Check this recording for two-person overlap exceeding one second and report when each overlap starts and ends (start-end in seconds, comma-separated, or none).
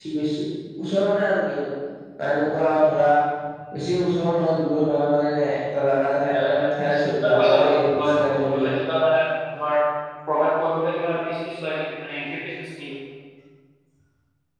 6.3-8.7